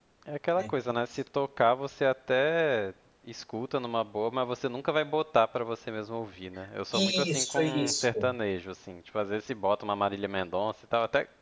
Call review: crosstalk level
present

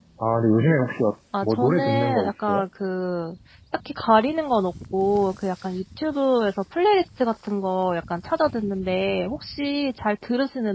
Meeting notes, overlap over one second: present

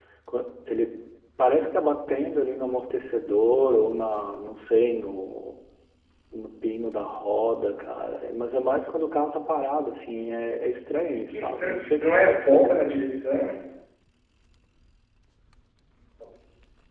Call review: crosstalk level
present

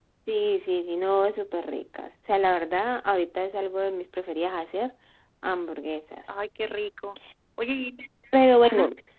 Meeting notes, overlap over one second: none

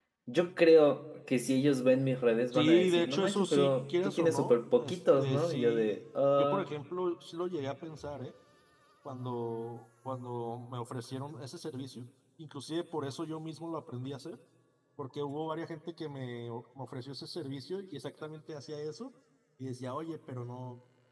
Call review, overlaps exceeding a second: present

